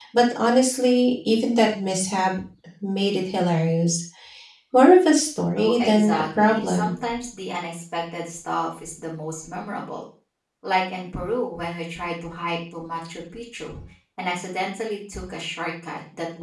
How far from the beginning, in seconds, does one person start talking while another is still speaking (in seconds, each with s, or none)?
5.6 s